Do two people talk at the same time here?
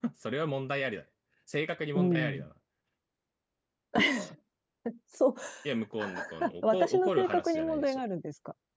Yes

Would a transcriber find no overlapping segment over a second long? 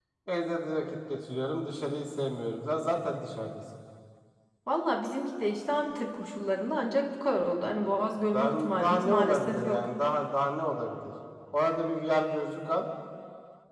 No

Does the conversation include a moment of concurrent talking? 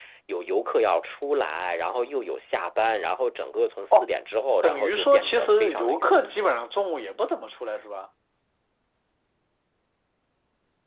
Yes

